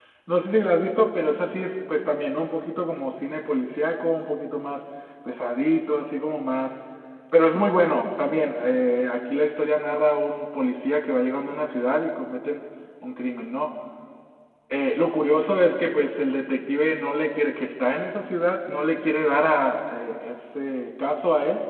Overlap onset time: none

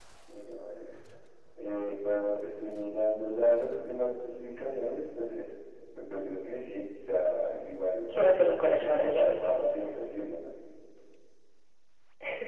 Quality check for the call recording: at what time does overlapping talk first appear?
8.1 s

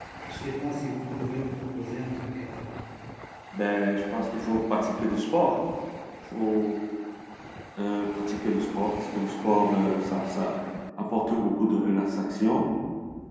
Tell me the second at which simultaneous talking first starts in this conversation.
none

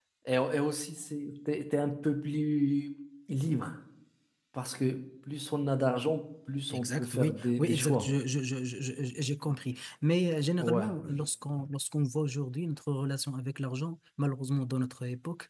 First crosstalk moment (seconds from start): 6.7 s

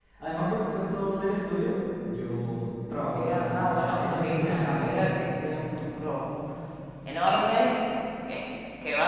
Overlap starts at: 3.0 s

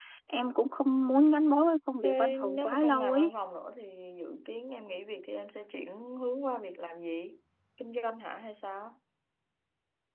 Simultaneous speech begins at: 2.0 s

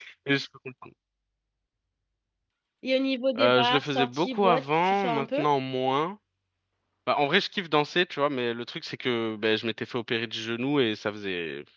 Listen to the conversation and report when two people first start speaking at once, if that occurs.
3.4 s

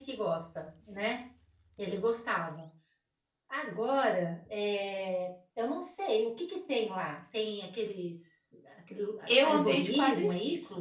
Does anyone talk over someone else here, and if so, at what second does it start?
9.3 s

